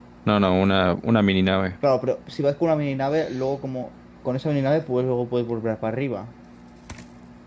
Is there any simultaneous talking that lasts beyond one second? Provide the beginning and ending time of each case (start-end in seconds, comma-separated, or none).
none